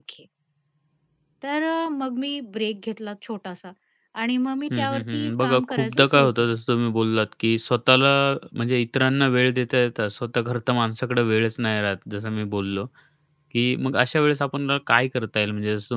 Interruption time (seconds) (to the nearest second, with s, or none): 5 s